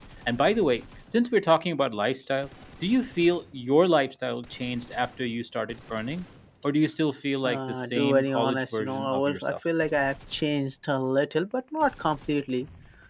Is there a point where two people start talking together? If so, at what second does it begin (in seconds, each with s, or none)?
7.4 s